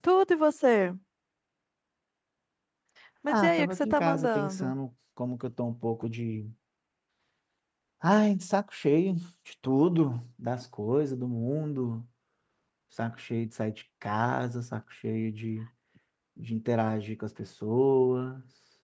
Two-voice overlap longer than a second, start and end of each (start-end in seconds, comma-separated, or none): 3.3-4.7